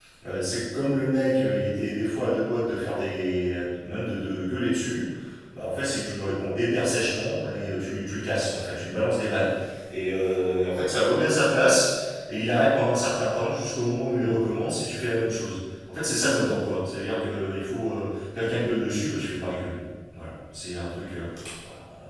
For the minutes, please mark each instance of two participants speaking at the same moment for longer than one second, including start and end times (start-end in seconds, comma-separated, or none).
none